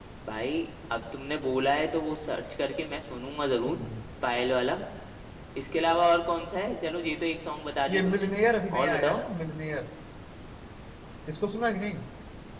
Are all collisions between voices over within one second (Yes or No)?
Yes